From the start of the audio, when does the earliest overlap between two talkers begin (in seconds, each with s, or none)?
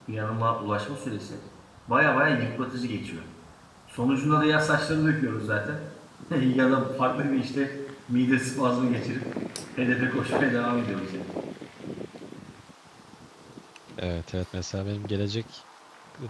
none